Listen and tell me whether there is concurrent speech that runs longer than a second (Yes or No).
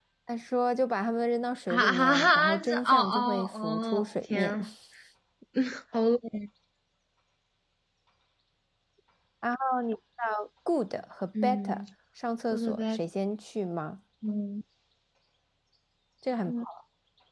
Yes